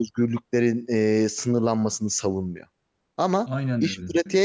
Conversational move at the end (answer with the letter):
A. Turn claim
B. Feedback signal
B